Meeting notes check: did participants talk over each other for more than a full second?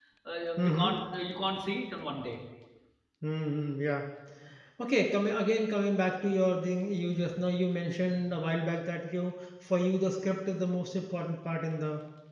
No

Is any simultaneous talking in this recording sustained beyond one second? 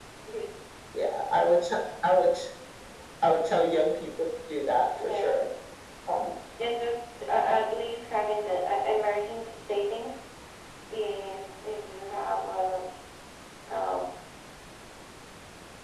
No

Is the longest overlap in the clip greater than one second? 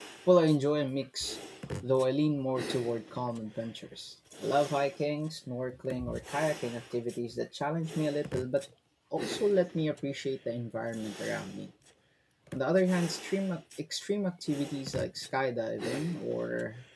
No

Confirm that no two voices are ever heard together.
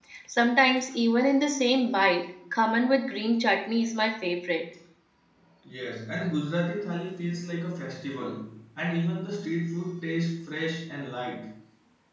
Yes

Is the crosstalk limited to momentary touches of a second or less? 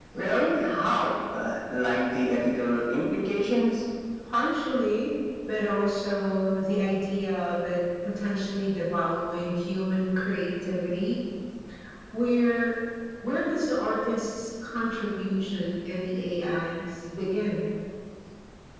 Yes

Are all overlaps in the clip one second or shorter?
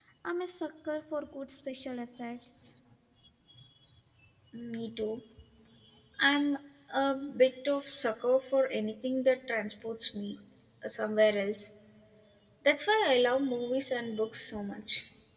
Yes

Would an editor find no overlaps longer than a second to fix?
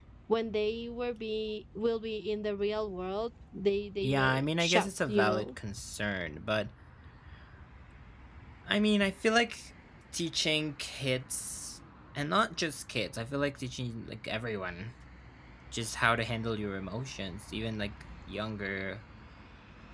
No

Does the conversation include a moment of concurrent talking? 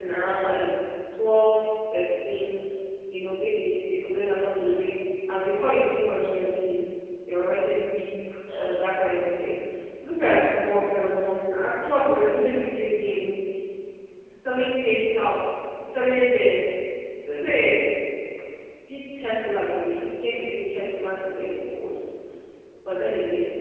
No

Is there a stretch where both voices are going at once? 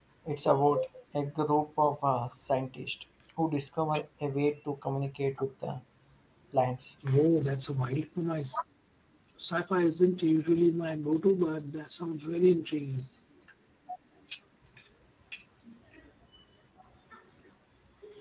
No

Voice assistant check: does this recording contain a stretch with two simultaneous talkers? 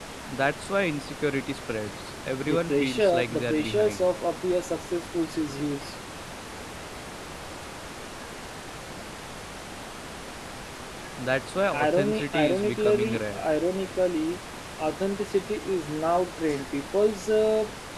Yes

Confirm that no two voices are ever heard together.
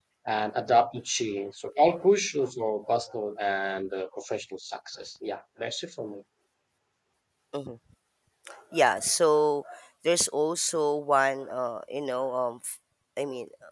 Yes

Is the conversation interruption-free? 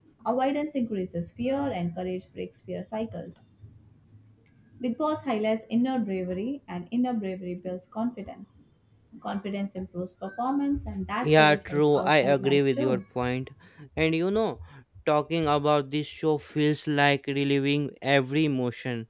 No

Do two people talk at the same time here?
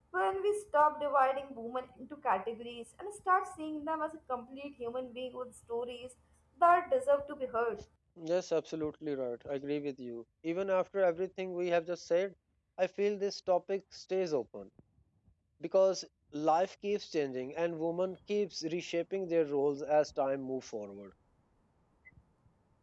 No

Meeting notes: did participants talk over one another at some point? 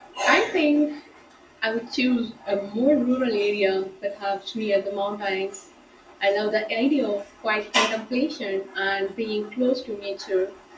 No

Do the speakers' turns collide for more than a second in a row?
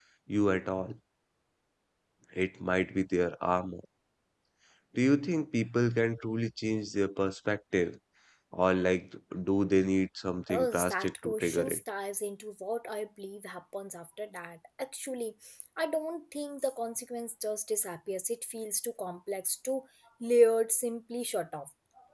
Yes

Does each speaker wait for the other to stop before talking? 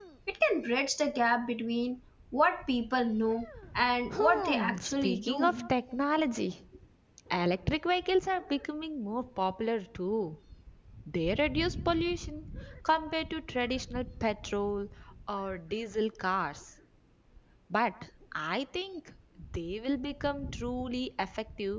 No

